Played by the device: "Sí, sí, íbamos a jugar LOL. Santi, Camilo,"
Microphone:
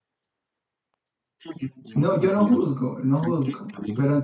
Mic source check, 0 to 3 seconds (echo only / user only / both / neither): both